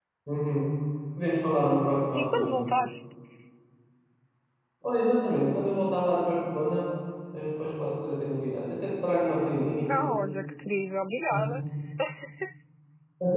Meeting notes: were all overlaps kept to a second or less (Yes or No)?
Yes